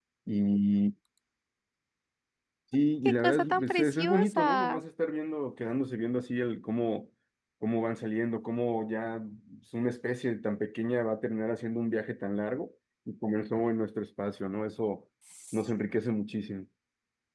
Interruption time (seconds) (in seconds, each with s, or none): 3.2 s